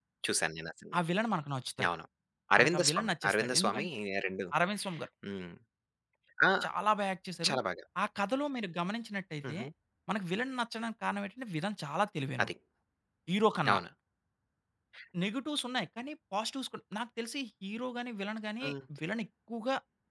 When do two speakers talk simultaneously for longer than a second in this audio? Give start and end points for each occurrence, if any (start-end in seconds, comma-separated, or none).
2.6-3.9